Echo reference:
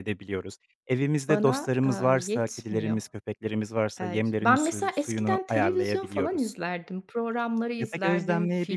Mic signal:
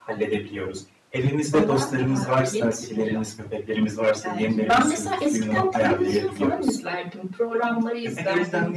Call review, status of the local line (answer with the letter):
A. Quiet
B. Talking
A